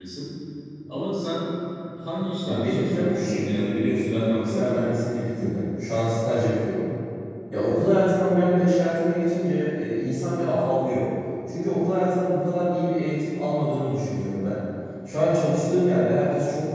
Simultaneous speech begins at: 2.5 s

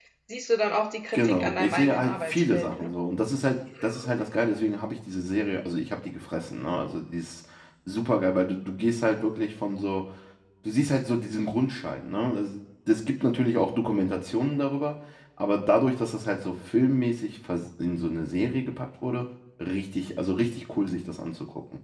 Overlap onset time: 1.1 s

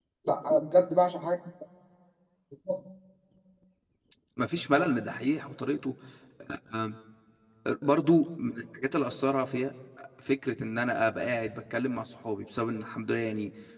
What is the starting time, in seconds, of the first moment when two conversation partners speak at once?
none

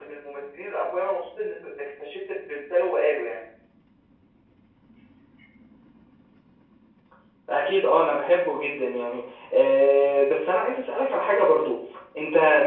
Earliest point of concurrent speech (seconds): none

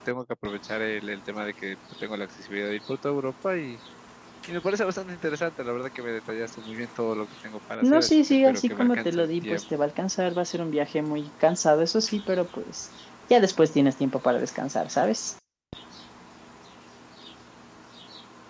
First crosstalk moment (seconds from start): 7.8 s

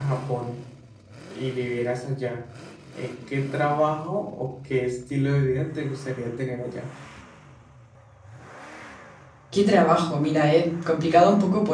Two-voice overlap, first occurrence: none

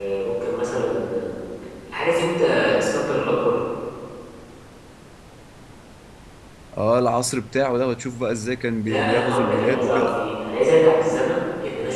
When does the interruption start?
8.8 s

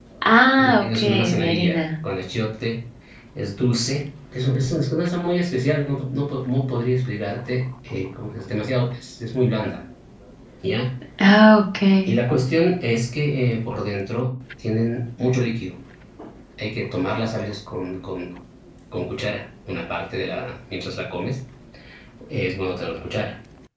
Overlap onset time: 0.6 s

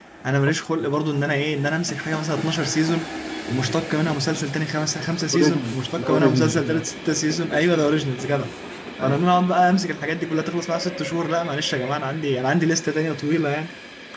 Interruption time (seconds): 5.3 s

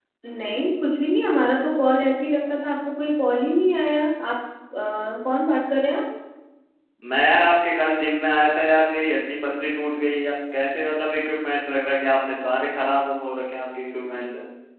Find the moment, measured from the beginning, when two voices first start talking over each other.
none

